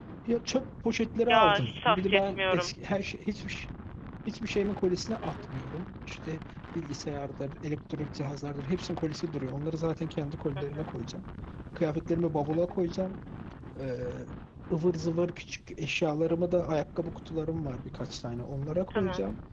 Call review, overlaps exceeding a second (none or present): present